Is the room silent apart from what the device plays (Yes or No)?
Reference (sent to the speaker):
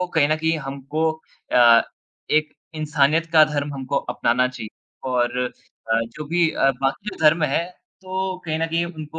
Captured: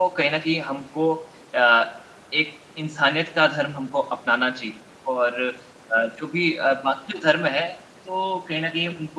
Yes